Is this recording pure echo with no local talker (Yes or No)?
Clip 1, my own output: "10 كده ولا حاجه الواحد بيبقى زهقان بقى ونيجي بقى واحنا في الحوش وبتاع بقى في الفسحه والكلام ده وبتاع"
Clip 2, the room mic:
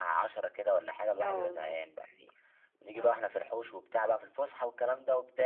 No